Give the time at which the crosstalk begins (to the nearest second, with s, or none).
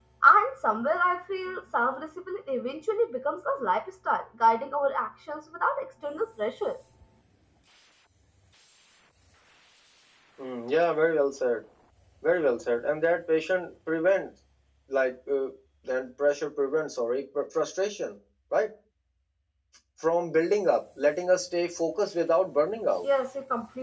none